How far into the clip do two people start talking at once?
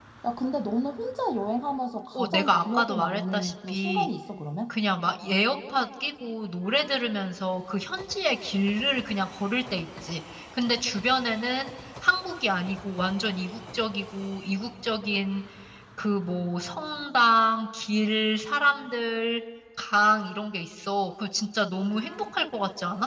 2.1 s

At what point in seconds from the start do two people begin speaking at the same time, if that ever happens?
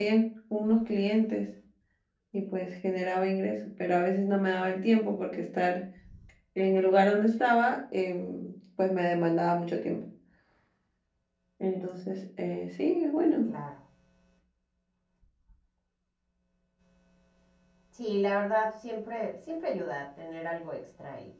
none

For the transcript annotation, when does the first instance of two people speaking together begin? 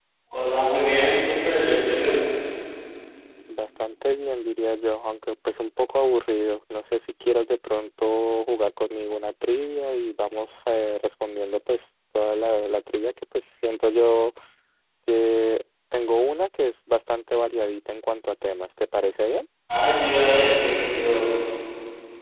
none

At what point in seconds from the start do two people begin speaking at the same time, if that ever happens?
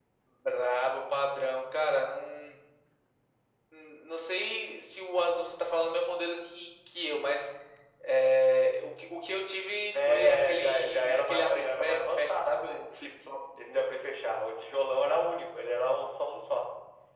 9.9 s

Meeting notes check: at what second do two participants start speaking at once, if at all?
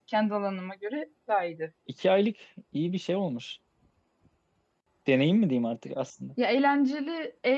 none

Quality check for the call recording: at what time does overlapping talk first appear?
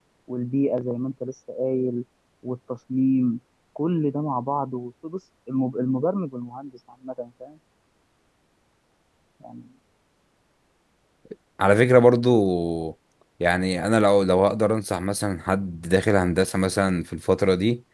none

